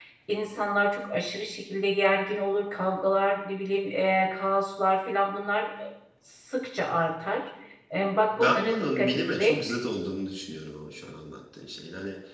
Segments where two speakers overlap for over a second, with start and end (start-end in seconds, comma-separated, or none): 8.3-9.6